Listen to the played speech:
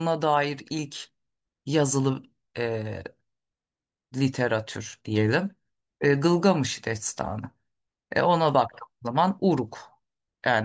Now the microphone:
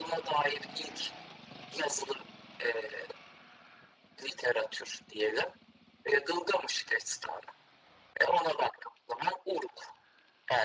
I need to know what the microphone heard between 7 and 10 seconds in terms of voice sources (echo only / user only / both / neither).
echo only